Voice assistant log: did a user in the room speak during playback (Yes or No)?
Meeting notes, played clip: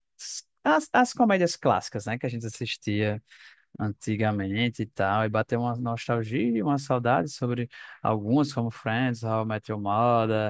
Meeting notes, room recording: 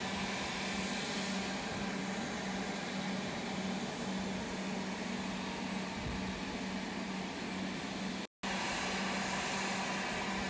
No